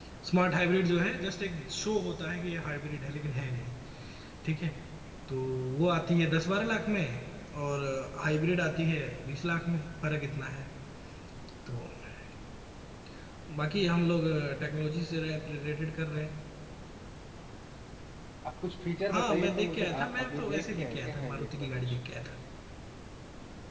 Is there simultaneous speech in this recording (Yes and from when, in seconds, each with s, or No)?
Yes, from 19.1 s